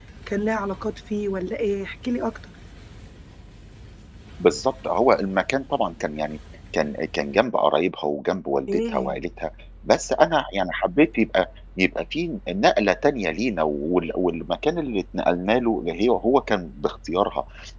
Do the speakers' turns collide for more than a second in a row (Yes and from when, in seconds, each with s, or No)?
No